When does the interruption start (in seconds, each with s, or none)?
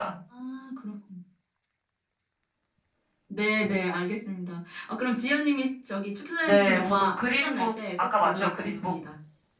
6.5 s